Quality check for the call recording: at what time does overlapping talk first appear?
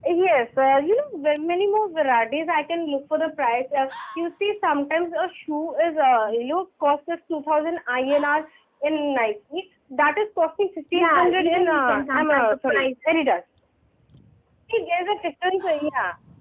10.9 s

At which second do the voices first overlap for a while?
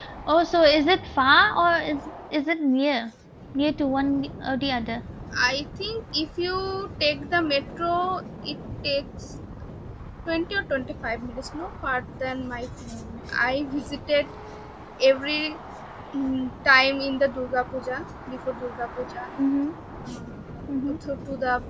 none

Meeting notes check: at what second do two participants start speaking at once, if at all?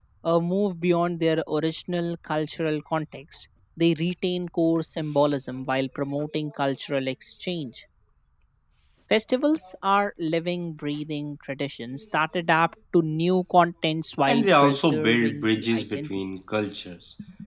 14.2 s

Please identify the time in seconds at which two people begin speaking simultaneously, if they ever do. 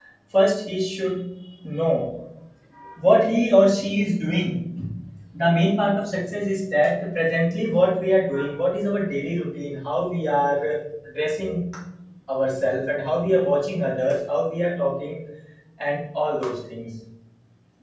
none

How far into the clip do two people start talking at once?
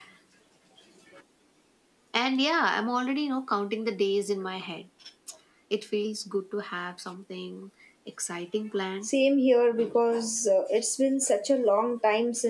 none

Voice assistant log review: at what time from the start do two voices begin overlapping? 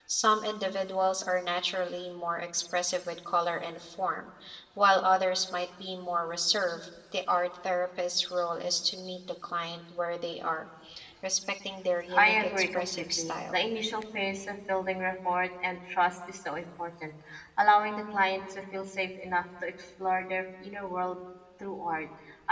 12.1 s

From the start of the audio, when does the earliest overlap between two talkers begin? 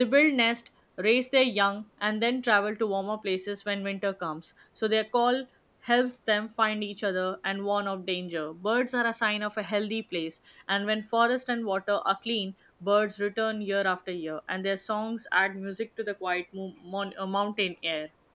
none

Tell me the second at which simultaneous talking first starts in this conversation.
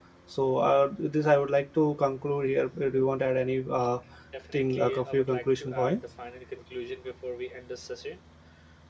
4.5 s

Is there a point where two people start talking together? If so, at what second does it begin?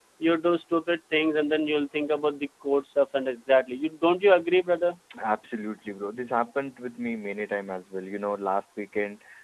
none

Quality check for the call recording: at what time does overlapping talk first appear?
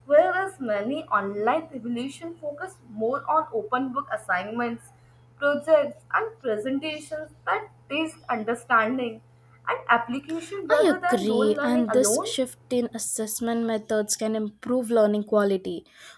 10.7 s

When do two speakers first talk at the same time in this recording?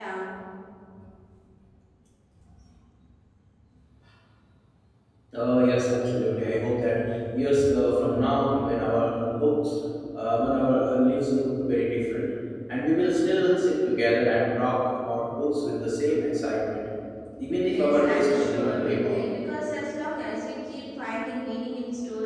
17.6 s

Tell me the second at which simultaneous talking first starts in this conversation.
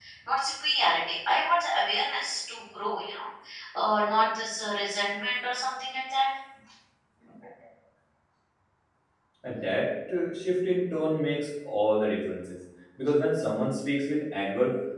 none

